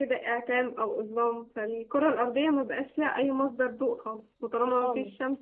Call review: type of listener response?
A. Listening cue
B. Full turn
A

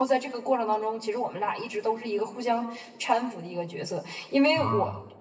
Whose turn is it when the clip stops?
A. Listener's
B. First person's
B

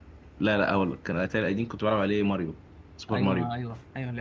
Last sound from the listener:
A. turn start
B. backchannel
A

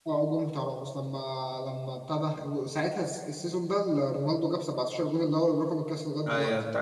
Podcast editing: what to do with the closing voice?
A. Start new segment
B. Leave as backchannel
A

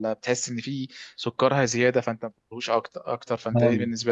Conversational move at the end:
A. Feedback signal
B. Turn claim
B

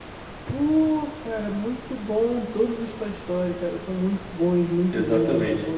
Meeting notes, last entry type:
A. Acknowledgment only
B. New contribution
B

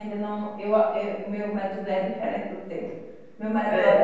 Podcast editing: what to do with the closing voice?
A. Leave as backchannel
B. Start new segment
A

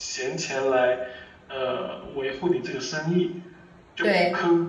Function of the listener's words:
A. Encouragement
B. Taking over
B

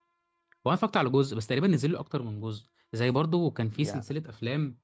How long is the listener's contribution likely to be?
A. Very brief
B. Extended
A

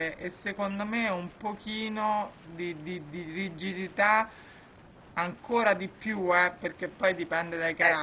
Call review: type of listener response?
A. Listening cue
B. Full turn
A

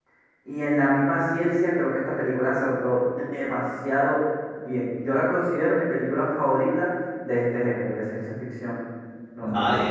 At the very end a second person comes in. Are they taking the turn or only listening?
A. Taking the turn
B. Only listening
A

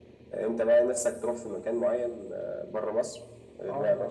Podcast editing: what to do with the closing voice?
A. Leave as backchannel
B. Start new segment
B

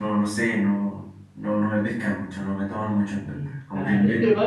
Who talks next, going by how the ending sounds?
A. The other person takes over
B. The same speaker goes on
A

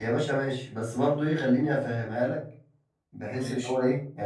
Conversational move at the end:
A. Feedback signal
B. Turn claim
A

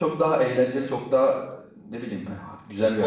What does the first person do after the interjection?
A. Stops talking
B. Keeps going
A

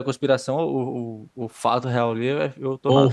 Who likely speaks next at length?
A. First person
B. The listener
B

